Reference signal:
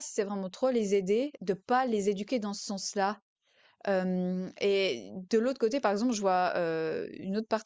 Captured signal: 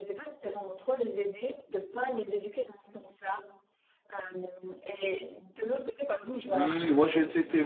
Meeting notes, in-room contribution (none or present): present